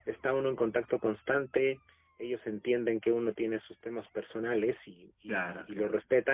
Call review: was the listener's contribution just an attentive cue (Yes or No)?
Yes